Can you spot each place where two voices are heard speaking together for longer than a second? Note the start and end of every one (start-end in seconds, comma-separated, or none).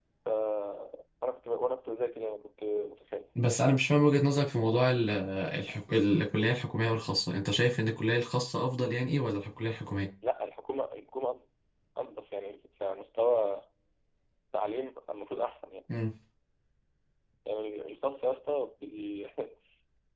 none